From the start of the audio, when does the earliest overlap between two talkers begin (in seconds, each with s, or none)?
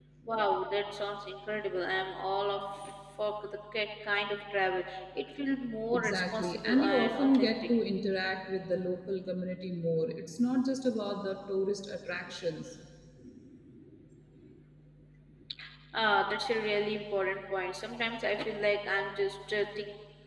5.9 s